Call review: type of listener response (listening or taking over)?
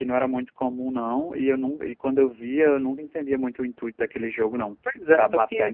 taking over